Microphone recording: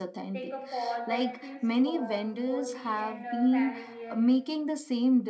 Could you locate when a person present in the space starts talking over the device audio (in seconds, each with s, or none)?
0.3 s